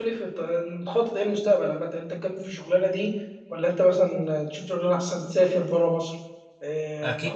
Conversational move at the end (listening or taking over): taking over